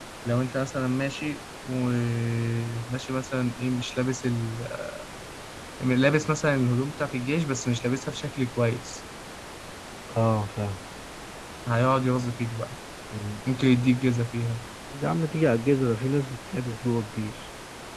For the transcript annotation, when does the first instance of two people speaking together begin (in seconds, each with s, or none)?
none